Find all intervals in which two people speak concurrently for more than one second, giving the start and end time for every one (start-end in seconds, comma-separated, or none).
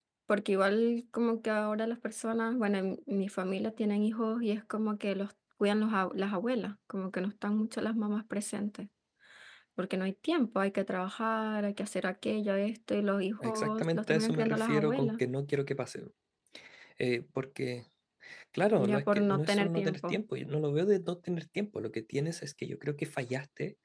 13.4-15.2, 18.8-20.2